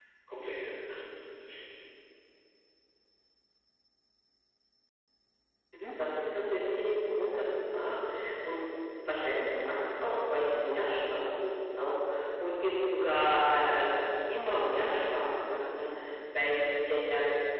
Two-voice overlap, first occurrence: none

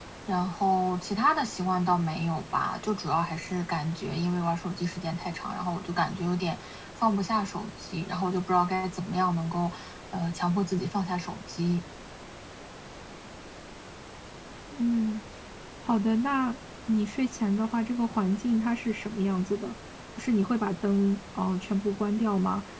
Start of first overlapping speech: none

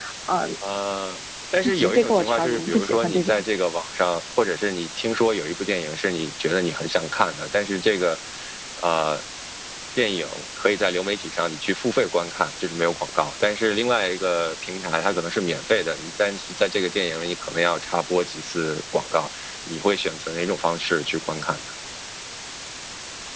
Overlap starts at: 1.6 s

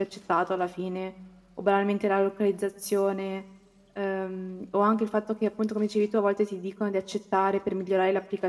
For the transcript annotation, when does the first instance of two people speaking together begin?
none

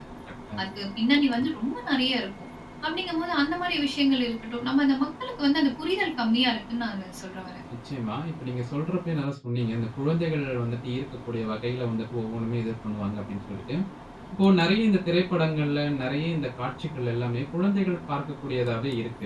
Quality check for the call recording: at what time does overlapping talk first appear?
none

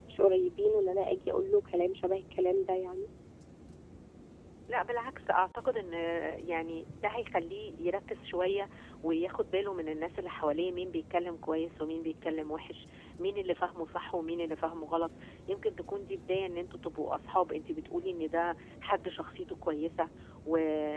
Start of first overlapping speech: none

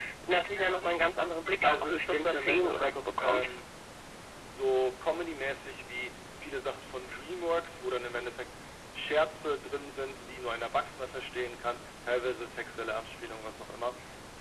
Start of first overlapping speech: 1.6 s

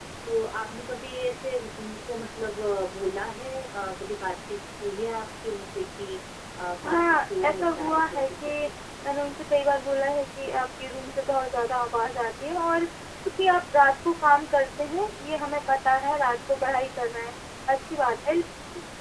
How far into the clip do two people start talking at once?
6.8 s

